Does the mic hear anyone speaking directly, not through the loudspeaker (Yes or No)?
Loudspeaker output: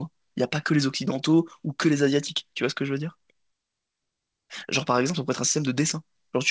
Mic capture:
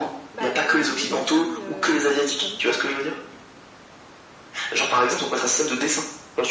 Yes